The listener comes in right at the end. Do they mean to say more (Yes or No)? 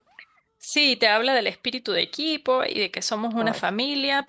No